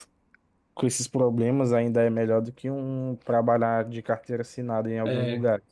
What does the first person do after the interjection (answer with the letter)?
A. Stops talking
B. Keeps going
A